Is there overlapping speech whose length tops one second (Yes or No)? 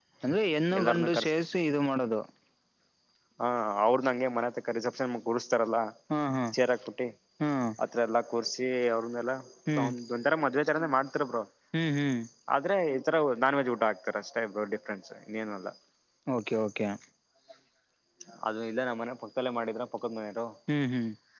No